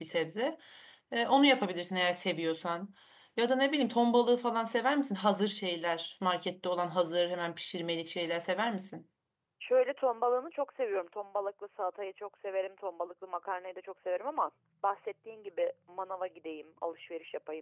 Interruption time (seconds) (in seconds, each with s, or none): none